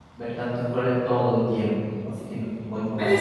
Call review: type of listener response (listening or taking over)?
taking over